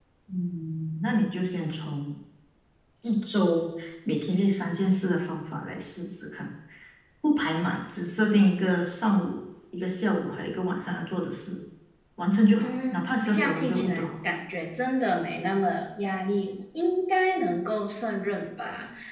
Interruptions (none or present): present